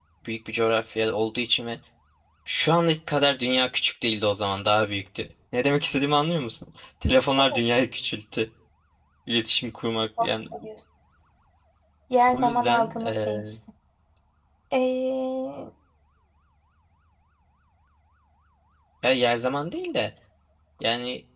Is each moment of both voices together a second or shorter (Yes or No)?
No